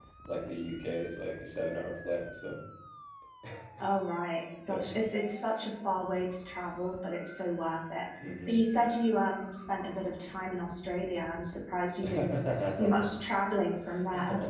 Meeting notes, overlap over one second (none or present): none